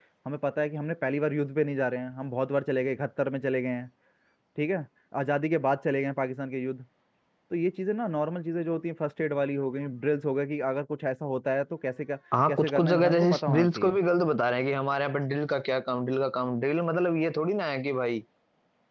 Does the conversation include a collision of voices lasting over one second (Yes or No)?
Yes